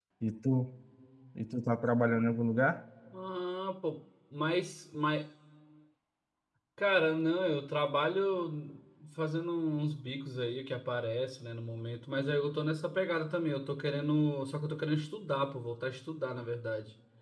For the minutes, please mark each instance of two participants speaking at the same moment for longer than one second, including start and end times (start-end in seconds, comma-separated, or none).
none